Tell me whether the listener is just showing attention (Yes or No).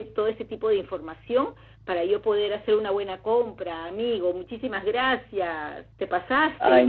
No